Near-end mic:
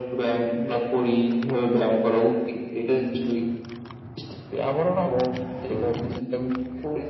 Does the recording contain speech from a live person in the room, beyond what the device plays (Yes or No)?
No